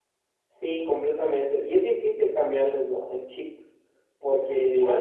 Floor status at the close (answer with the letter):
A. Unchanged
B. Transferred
B